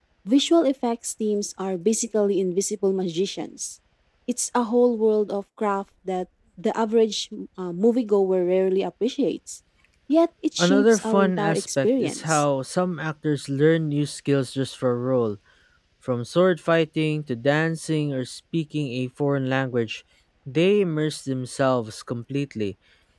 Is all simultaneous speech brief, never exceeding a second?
No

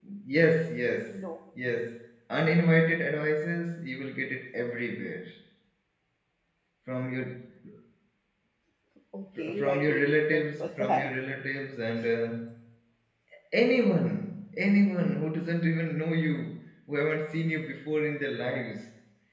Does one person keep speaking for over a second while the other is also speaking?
Yes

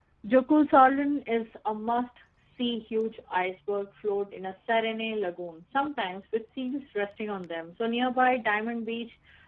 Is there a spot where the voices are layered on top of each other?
No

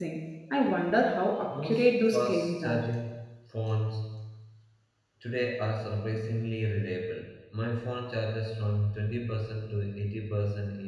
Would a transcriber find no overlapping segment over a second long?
No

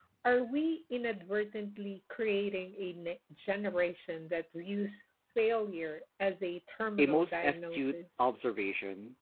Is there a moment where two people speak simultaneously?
Yes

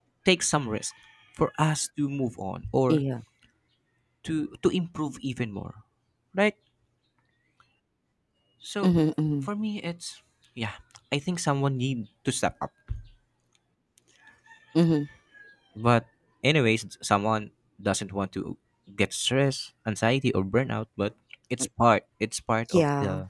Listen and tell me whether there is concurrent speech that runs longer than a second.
No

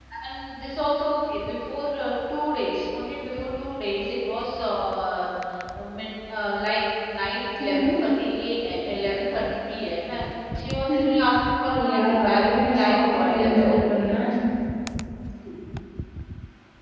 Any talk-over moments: Yes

